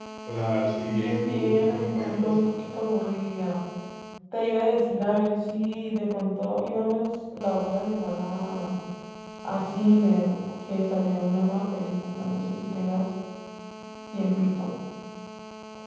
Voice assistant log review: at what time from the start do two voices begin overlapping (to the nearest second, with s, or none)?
1 s